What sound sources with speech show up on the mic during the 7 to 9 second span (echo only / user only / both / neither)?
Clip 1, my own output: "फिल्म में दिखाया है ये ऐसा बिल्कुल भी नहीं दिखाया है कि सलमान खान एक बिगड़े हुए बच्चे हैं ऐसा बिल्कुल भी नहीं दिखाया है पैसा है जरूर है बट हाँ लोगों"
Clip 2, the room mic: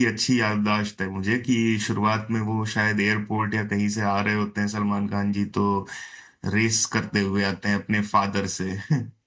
user only